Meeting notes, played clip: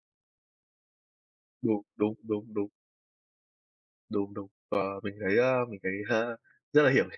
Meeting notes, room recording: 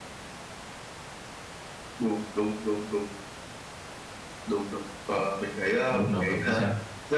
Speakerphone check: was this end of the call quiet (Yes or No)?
No